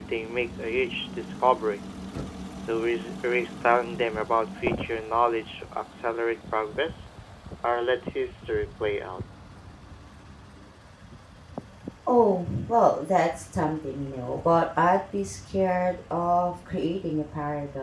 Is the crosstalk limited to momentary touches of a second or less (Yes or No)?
Yes